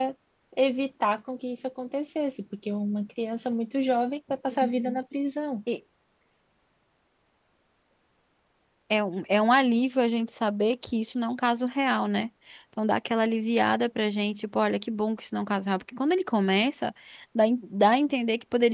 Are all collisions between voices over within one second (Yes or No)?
Yes